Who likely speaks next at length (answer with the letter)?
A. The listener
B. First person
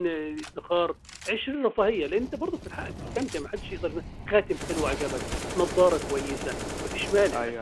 A